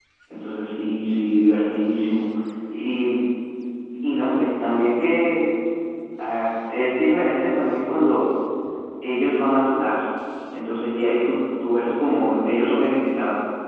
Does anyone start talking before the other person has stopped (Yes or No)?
No